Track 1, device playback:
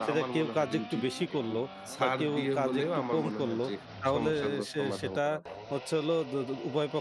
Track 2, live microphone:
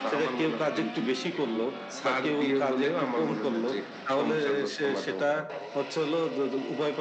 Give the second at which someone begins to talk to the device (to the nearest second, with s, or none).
none